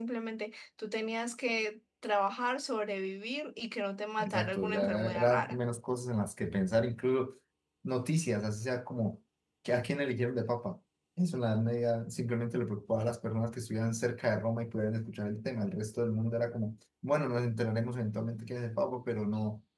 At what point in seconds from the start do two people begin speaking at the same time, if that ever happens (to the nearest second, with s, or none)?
4 s